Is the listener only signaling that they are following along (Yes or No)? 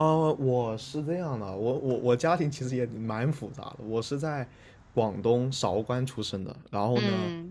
Yes